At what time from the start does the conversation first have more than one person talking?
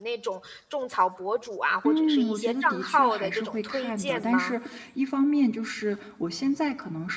2 s

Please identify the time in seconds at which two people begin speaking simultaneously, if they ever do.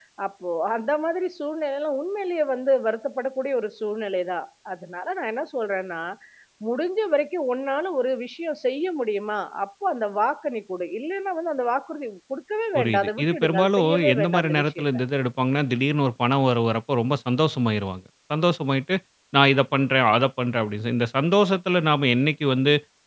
13 s

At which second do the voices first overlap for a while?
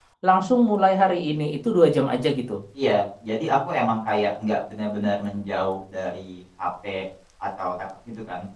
none

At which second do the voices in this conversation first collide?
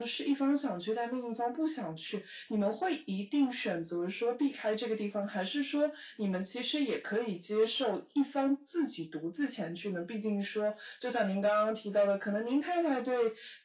none

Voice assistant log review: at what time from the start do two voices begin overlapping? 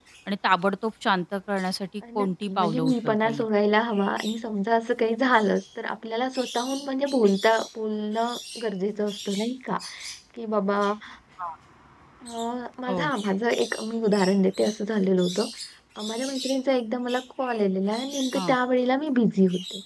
2 s

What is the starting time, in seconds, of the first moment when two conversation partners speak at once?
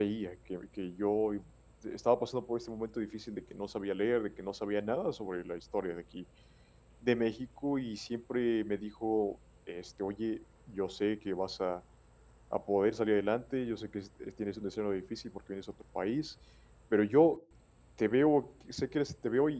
none

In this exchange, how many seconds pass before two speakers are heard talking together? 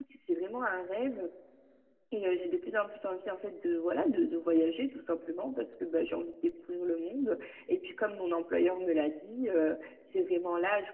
none

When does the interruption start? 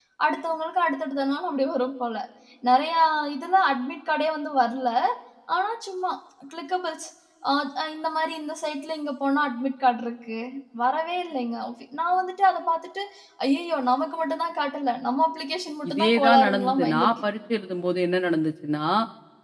16 s

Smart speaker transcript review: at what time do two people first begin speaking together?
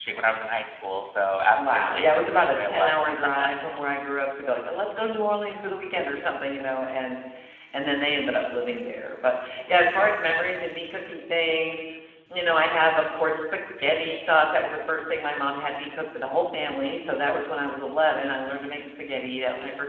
2 s

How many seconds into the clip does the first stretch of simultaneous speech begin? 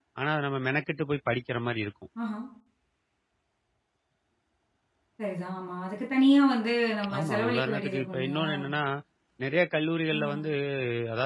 7 s

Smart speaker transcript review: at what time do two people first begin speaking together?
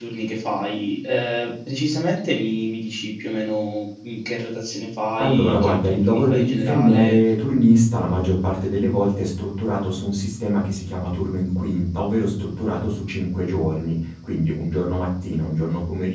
5 s

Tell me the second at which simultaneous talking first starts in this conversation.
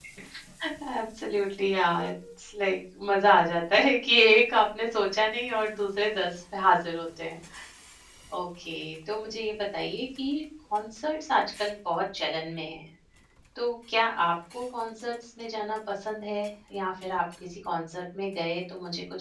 none

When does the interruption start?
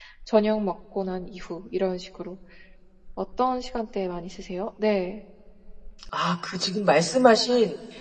none

